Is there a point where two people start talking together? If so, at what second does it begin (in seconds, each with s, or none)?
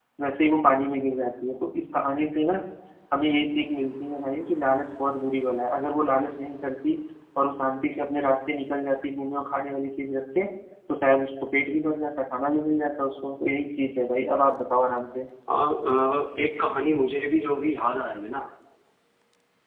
none